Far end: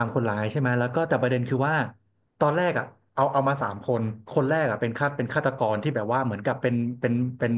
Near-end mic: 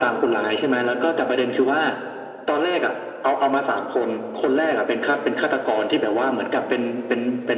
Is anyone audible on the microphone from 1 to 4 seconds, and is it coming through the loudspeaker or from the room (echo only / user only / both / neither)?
echo only